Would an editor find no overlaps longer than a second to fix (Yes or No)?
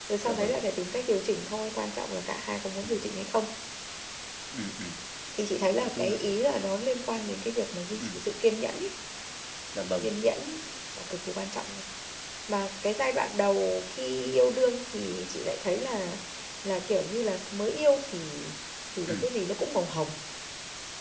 Yes